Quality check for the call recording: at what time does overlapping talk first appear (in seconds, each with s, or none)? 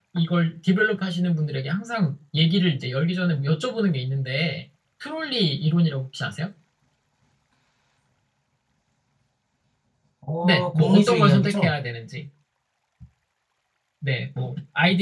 10.4 s